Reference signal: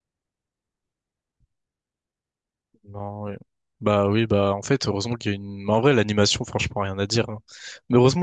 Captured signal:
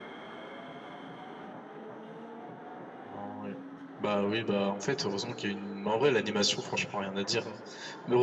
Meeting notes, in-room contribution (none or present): none